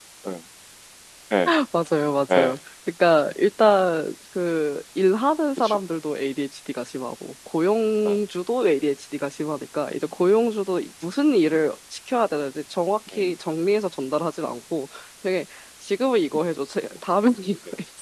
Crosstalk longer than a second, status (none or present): none